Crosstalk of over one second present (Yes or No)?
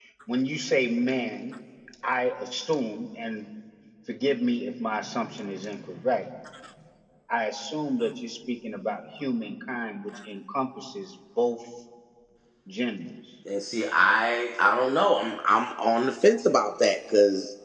No